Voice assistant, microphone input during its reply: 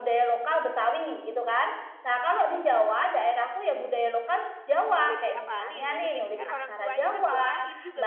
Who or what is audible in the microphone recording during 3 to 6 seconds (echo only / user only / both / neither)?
both